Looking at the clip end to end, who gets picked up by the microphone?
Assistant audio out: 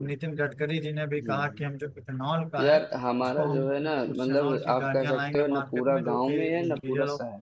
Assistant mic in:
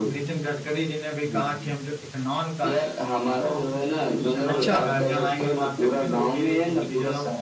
both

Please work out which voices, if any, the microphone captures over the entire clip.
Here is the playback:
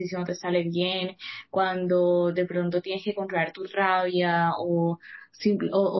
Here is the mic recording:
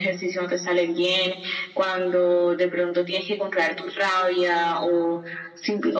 echo only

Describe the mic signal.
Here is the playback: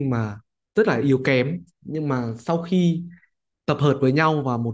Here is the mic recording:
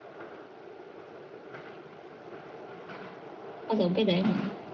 user only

